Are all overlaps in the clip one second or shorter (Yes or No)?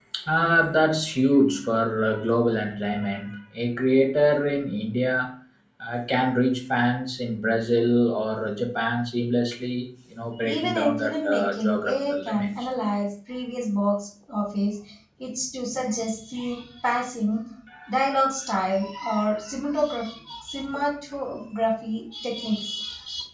No